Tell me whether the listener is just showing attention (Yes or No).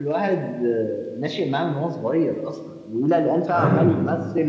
Yes